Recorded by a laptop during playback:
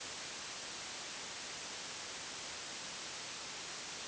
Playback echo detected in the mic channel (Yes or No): No